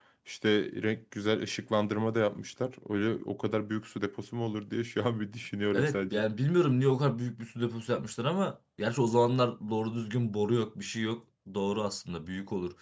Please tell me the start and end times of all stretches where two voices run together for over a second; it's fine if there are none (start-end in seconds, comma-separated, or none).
none